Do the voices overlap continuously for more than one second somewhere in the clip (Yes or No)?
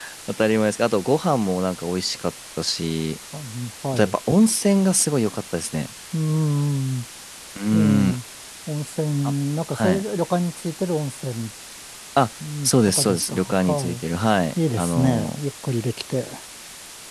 Yes